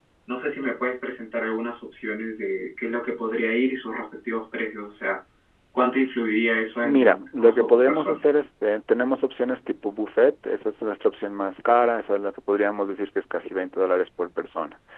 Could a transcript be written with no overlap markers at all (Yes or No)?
No